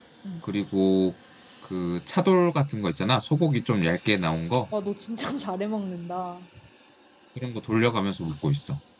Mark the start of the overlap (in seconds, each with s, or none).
none